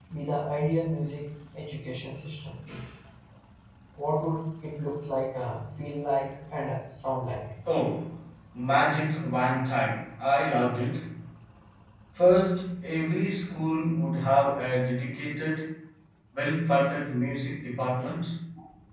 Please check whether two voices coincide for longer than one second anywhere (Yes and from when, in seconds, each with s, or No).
No